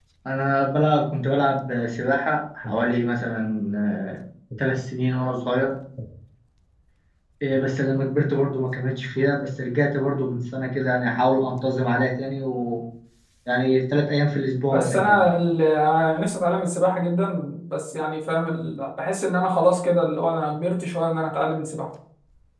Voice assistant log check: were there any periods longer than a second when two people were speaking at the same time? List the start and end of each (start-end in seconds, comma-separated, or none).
none